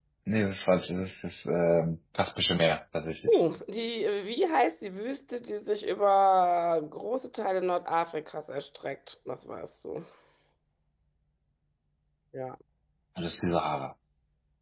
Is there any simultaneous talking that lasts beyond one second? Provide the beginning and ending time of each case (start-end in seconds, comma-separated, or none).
none